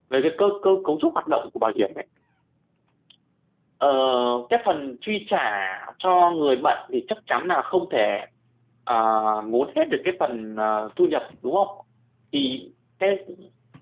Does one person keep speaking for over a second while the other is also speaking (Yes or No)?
No